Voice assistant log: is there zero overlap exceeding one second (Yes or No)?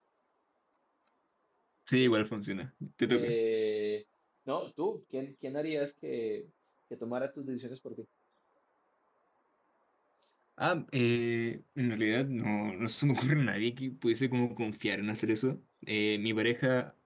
Yes